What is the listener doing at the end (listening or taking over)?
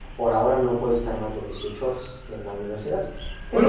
taking over